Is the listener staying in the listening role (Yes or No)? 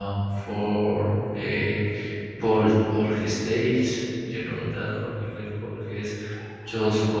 Yes